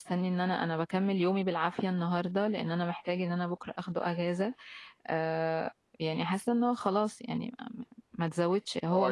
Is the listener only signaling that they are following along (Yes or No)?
No